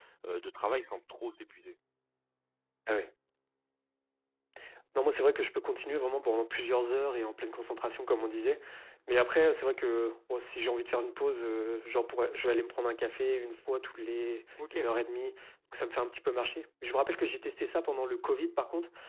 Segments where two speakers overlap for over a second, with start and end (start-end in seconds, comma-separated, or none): none